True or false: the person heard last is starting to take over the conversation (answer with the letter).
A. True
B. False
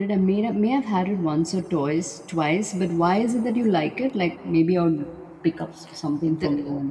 A